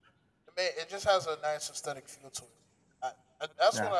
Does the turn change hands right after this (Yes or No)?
No